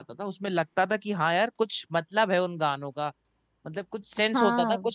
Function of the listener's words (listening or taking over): listening